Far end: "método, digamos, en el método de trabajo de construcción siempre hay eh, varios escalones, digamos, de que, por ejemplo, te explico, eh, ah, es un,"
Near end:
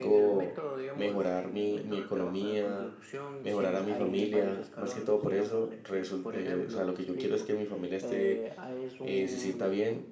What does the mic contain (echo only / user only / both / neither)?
both